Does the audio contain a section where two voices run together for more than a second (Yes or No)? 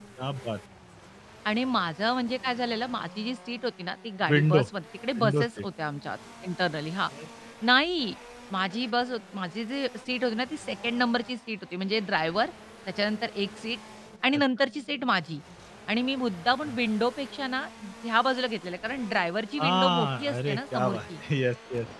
Yes